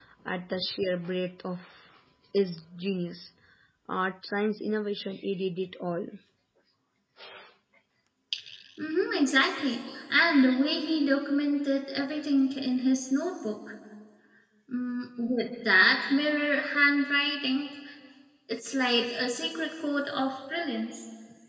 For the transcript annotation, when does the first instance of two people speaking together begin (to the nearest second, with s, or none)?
none